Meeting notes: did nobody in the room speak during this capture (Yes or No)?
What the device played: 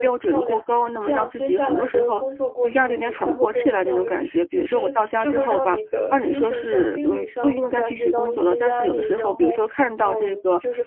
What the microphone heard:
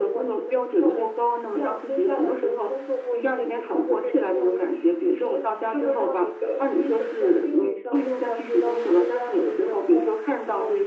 Yes